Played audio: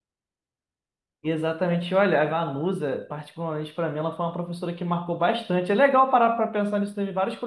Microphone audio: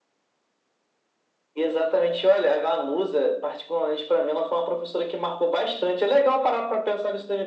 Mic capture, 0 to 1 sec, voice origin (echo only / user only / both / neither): neither